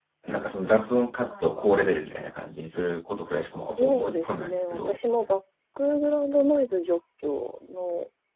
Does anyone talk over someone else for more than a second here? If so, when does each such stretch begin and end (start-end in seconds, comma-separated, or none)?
3.6-5.0